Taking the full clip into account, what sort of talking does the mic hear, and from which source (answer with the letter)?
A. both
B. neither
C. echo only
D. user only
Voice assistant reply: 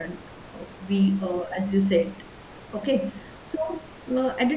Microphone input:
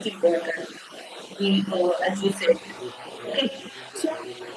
A